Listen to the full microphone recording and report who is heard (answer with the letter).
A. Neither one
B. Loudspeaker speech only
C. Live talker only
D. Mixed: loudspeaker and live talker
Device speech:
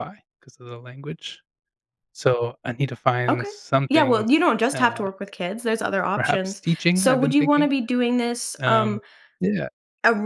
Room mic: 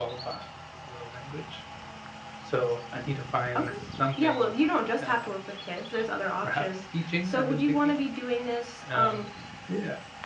B